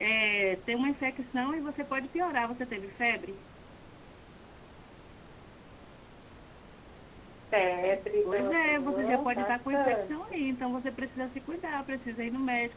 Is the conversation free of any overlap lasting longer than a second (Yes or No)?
No